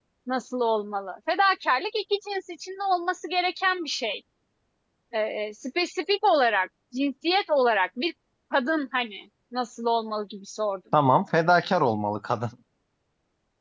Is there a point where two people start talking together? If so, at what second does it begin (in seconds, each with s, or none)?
none